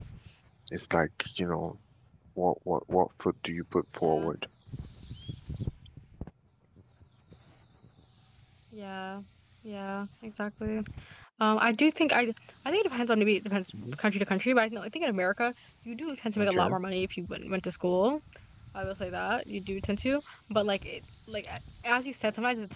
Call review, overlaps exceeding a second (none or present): none